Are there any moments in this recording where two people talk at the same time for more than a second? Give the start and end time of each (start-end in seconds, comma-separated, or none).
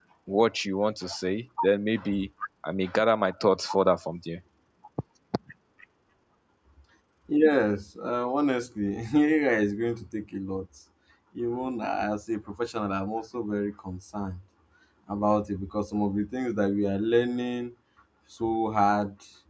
none